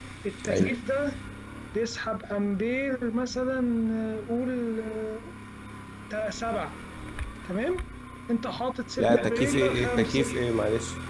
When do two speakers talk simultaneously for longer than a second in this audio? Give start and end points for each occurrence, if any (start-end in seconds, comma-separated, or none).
9.0-10.2